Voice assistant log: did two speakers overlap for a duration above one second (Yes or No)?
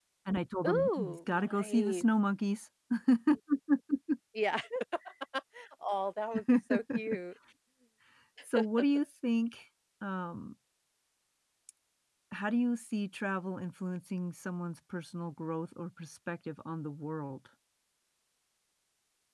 Yes